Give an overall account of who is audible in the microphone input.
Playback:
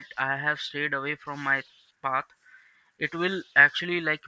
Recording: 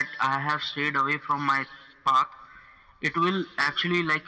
echo only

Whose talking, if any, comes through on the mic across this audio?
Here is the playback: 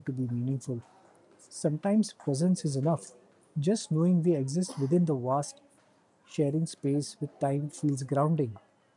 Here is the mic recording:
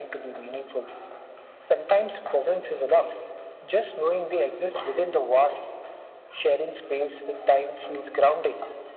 echo only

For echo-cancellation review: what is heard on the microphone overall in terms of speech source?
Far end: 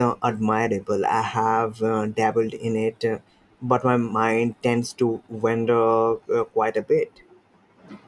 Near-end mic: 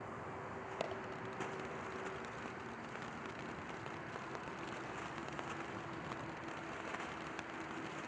neither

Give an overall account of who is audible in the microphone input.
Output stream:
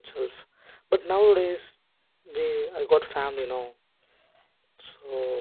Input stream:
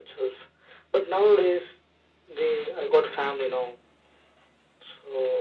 echo only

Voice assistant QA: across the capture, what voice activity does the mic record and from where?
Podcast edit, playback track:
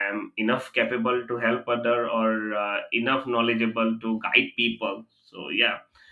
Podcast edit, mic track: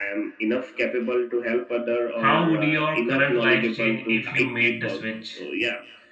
both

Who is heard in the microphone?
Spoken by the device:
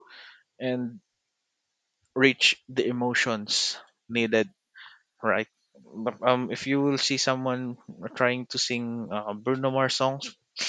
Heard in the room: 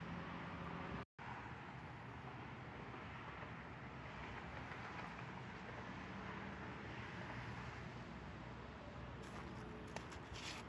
neither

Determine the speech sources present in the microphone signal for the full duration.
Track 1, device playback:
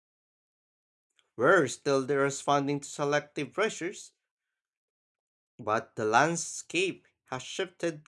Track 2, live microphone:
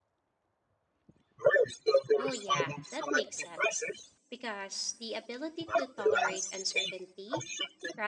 both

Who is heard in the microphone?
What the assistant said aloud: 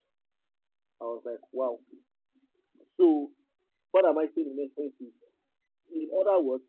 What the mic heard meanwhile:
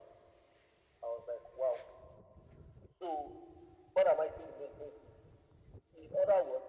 echo only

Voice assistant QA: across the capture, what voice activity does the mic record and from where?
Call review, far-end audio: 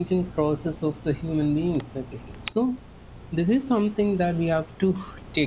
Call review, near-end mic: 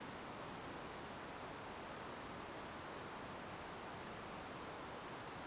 neither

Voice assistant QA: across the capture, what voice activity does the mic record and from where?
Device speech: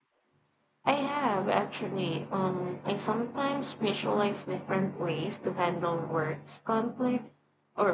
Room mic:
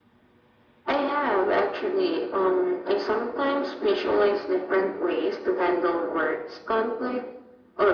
echo only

